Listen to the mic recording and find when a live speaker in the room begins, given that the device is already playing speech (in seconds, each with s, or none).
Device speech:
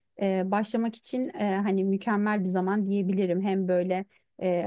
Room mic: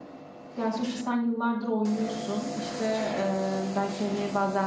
0.6 s